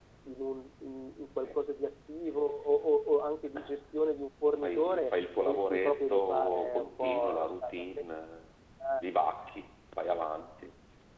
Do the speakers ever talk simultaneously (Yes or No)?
Yes